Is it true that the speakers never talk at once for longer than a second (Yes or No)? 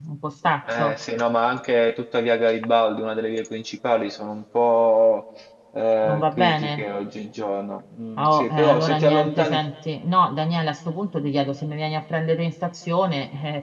No